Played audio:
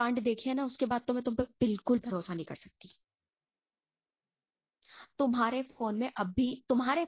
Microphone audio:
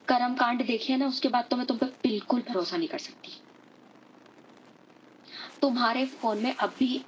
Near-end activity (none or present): none